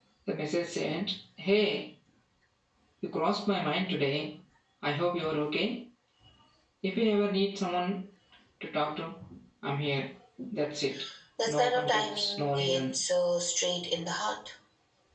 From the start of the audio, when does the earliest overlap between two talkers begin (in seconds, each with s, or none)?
11.5 s